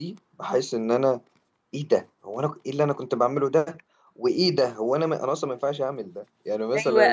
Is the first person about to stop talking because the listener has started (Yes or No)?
Yes